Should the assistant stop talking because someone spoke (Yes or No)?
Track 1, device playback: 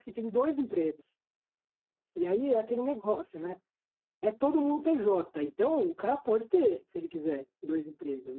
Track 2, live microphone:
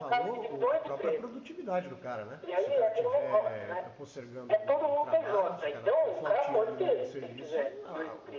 Yes